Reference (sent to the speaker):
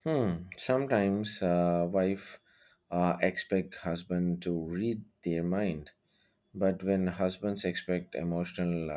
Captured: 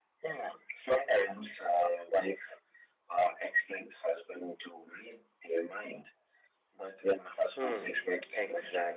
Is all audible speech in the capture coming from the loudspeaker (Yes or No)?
No